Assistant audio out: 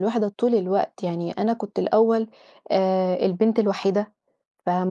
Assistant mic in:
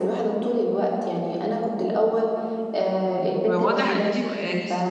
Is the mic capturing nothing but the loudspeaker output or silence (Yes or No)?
No